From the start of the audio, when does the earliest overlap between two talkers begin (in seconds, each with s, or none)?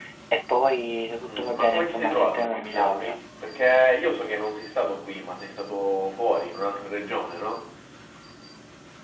1.3 s